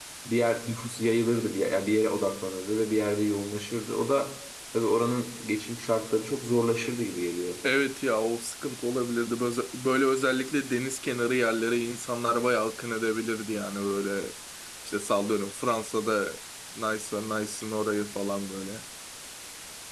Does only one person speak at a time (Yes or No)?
Yes